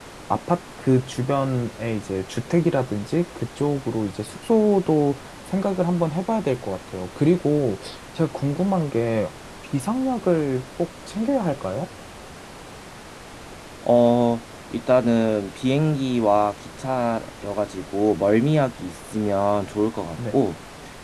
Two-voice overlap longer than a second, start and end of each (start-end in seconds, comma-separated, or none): none